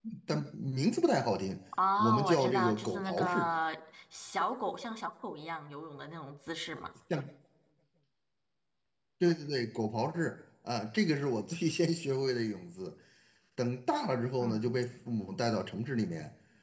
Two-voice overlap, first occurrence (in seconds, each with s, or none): 2.0 s